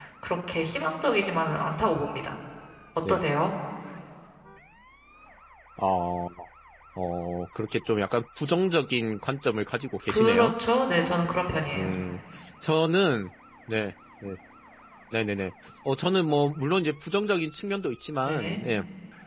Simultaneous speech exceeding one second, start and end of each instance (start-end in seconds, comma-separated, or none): none